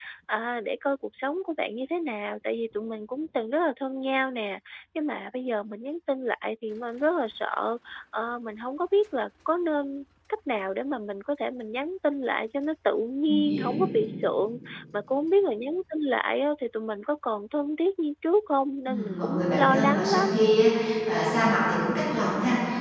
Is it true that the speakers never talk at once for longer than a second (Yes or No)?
No